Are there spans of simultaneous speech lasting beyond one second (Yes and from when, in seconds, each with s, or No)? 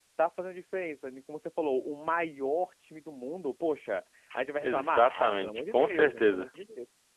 Yes, from 4.6 s